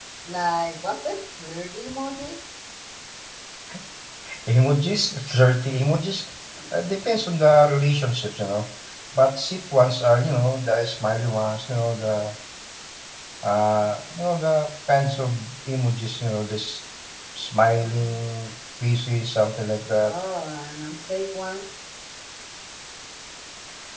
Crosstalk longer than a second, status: none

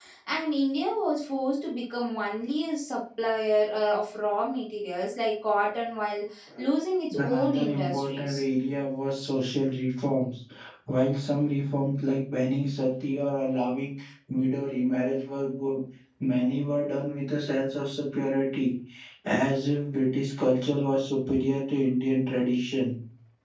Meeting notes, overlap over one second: present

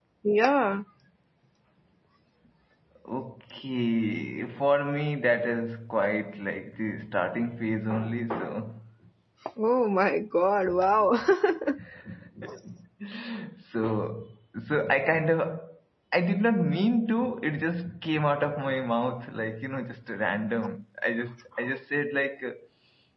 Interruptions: none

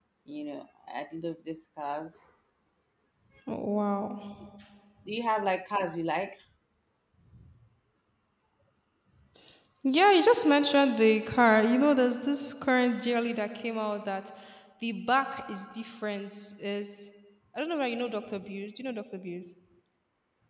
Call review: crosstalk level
none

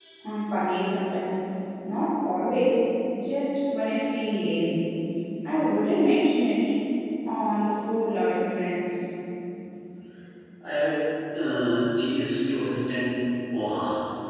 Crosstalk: none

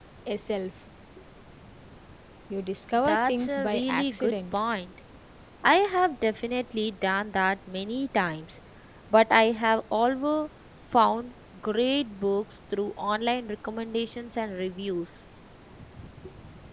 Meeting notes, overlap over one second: present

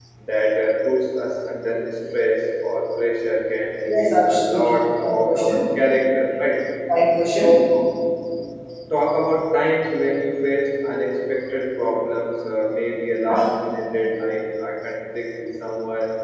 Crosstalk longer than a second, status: present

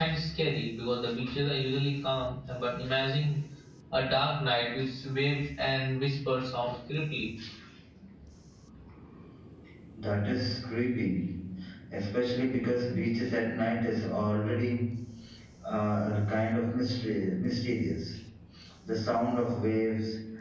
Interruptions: none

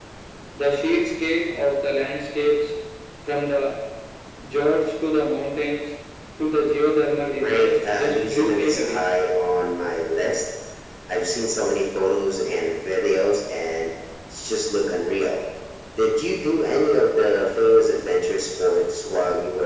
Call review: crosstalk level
present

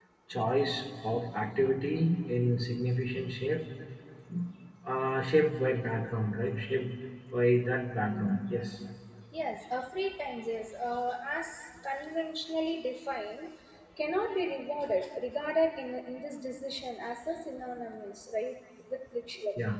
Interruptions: none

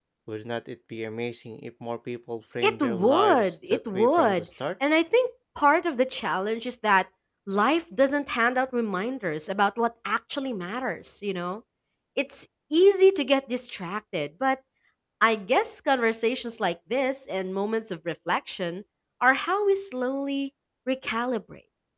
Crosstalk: present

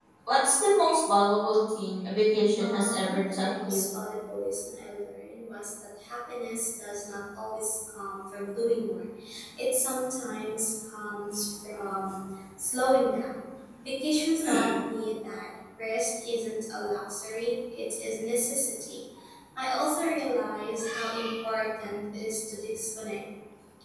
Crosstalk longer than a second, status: present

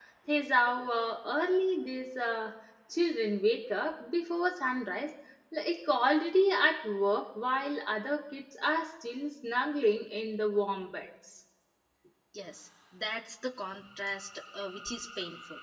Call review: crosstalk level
none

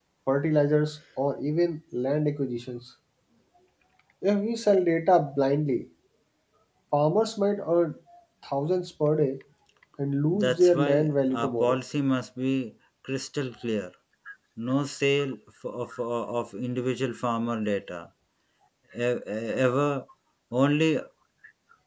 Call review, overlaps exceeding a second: present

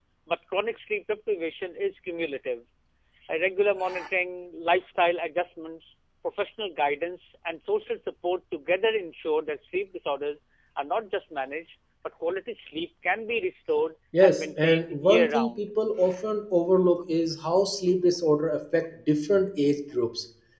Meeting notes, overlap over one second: present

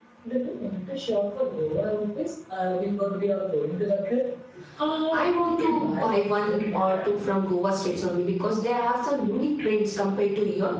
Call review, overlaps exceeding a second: present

